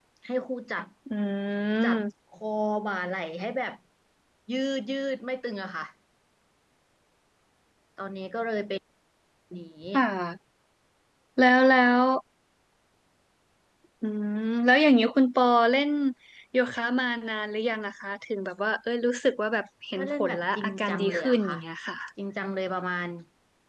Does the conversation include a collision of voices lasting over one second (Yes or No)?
Yes